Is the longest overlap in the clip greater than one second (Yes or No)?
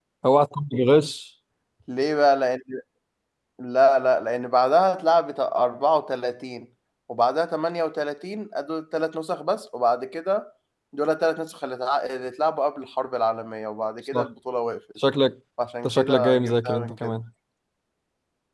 Yes